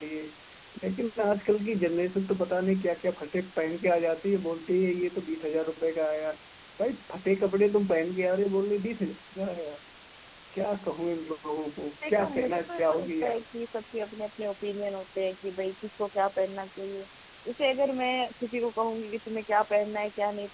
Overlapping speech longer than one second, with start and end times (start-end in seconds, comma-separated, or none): 12.1-13.4